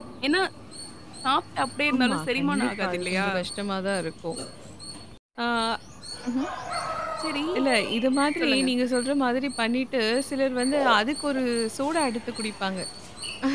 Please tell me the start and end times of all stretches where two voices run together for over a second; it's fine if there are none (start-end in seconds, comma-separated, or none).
1.9-3.2